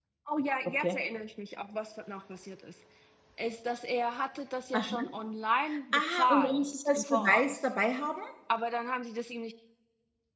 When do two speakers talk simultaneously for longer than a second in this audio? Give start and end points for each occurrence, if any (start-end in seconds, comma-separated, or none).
5.9-7.6